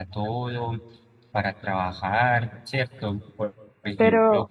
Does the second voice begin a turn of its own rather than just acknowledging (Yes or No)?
No